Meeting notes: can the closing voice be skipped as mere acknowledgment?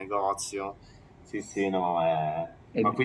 Yes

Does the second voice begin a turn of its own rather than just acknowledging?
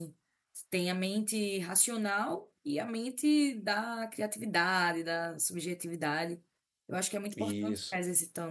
No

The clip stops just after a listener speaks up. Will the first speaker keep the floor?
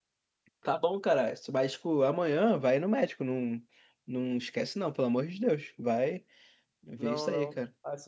No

